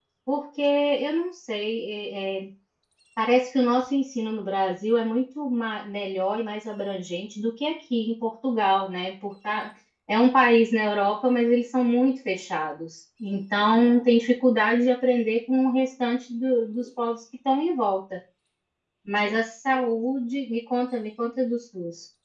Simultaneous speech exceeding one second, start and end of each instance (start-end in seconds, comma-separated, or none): none